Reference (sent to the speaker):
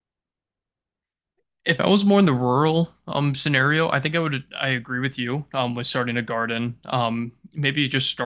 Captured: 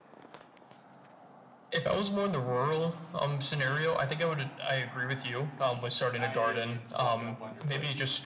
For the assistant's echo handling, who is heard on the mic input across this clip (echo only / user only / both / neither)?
both